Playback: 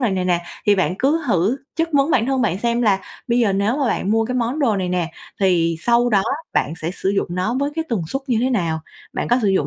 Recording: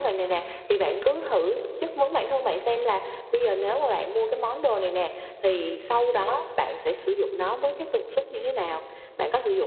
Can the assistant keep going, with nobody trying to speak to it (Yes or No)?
Yes